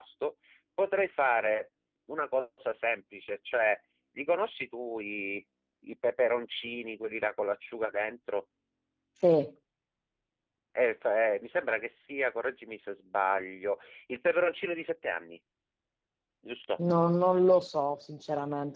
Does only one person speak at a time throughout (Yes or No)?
Yes